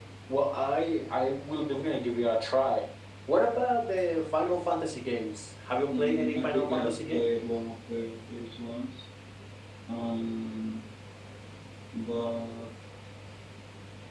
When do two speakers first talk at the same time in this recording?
5.9 s

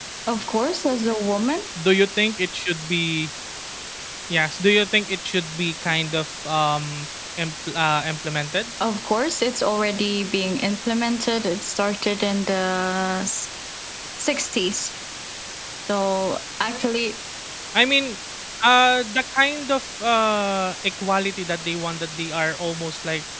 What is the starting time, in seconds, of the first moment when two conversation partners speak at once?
none

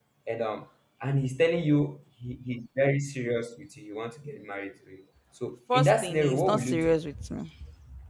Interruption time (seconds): 5.7 s

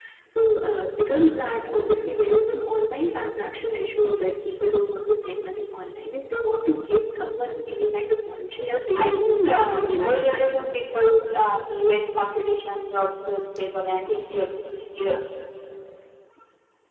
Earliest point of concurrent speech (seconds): 9.0 s

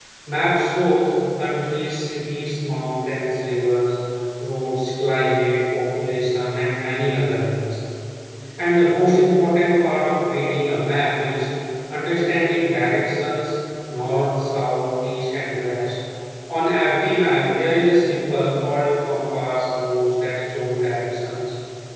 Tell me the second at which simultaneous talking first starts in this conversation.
none

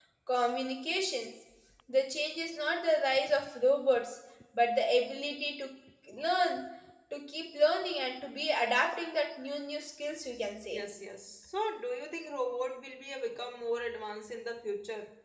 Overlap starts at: none

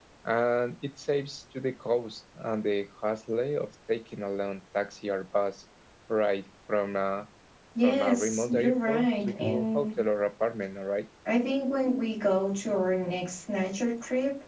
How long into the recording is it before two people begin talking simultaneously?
7.8 s

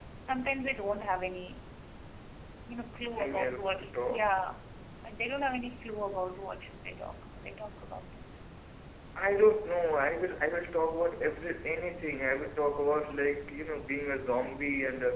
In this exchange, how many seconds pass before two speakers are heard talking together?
3.2 s

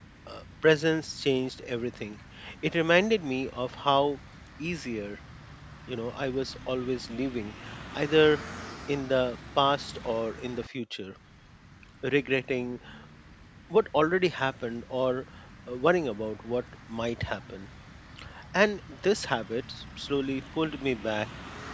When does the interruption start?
none

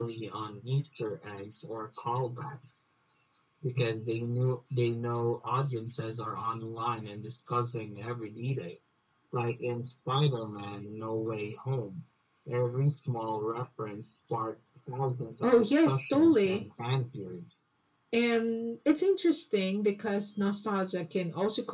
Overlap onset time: 15.4 s

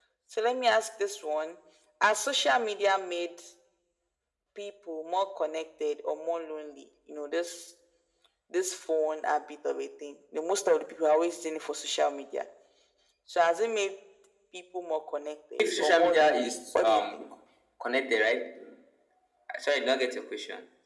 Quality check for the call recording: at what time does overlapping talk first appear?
15.6 s

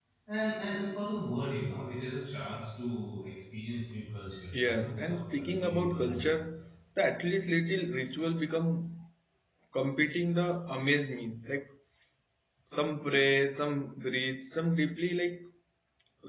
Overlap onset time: 4.5 s

